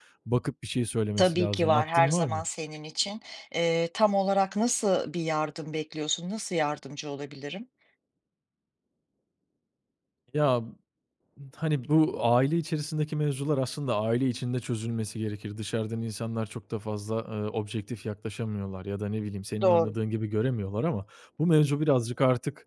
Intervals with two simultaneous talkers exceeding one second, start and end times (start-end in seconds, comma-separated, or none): 1.2-2.4